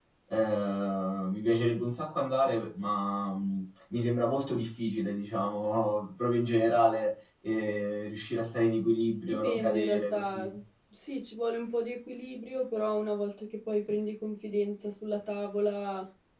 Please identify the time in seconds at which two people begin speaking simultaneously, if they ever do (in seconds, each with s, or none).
9.2 s